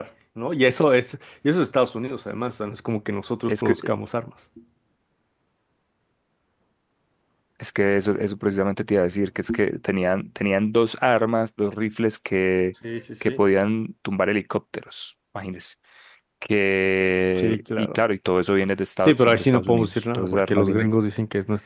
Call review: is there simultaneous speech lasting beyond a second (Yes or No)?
Yes